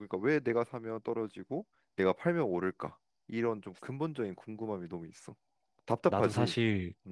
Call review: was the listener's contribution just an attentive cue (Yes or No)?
No